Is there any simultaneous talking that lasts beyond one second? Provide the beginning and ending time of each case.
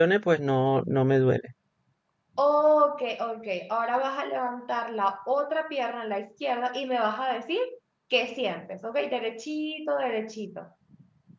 none

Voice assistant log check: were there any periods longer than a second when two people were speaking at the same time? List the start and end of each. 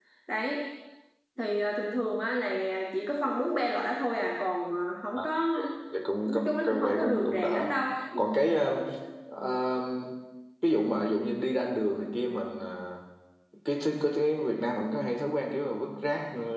6.2-7.7

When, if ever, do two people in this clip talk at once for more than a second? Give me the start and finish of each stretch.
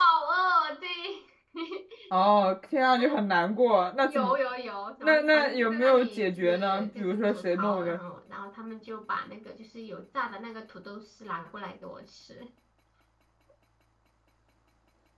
5.0-8.0

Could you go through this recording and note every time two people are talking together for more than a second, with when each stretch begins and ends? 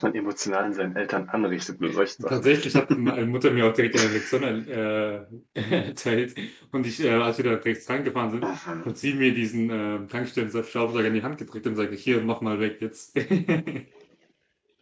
none

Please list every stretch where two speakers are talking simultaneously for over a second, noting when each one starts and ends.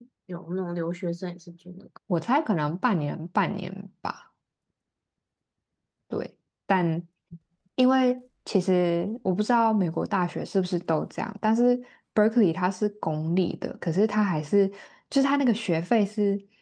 none

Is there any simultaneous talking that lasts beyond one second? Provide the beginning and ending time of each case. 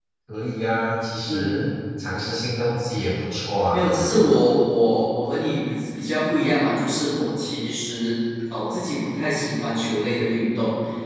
none

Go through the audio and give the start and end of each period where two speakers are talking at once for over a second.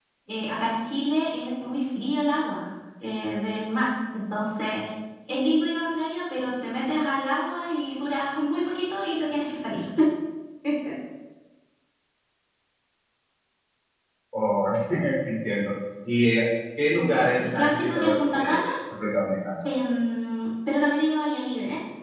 16.9-18.6

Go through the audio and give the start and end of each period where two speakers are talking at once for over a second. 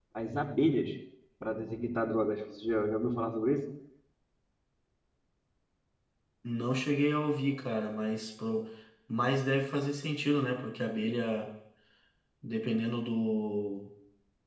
none

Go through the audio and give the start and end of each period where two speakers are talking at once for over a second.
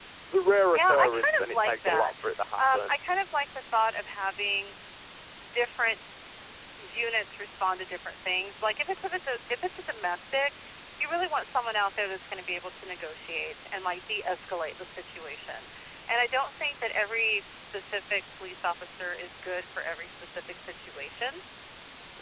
0.7-2.1

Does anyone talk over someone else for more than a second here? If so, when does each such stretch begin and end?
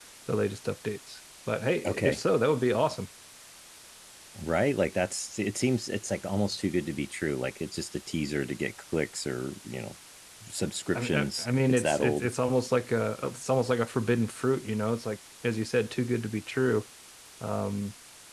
10.9-12.3

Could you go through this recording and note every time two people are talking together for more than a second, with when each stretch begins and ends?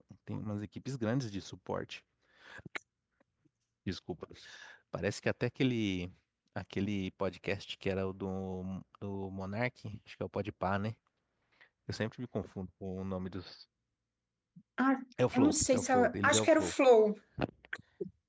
15.3-16.7

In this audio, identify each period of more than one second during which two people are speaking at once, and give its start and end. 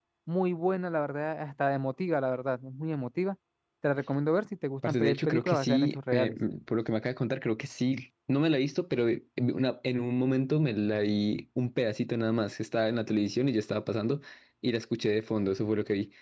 4.8-6.4

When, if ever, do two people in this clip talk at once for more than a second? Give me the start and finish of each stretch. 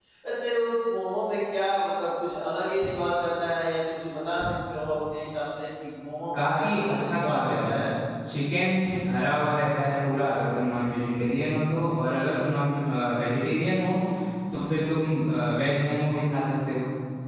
6.3-7.8

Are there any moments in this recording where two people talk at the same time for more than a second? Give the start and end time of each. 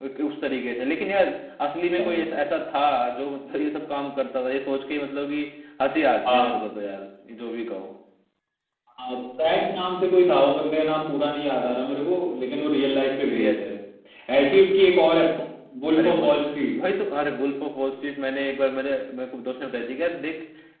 none

